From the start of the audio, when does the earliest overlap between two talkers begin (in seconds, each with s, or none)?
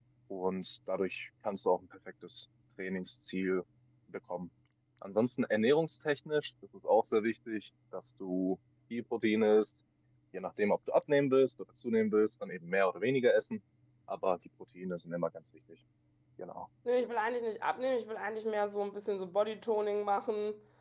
none